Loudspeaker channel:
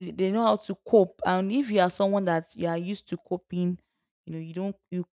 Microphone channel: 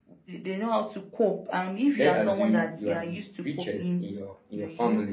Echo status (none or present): present